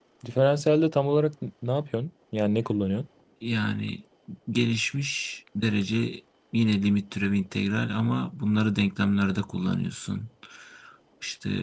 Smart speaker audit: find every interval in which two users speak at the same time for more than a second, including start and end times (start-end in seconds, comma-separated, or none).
none